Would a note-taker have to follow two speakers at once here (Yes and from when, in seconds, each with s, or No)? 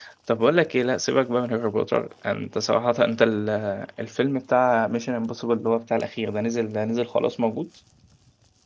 No